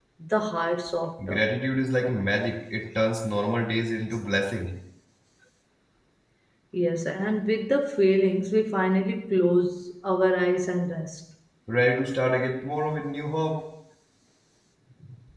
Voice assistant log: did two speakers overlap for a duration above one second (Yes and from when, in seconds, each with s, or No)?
No